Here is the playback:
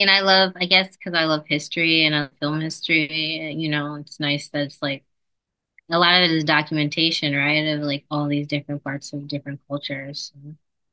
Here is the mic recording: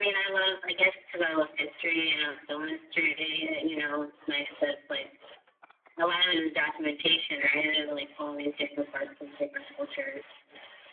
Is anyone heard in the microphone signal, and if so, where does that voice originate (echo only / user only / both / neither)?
echo only